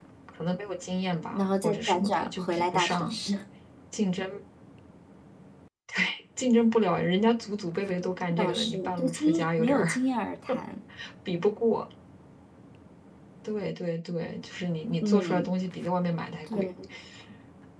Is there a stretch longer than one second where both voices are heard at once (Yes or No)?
Yes